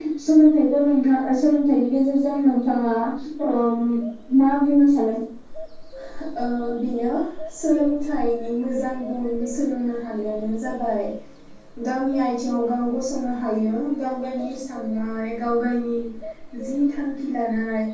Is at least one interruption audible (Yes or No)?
No